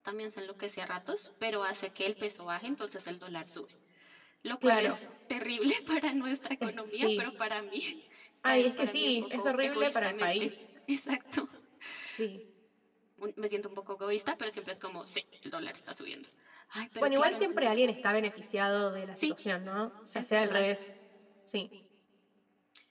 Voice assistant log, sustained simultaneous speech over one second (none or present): present